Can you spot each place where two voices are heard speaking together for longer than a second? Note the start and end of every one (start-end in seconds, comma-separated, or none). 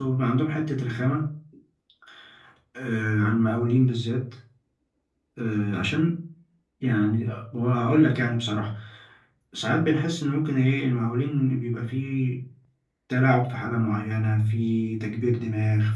none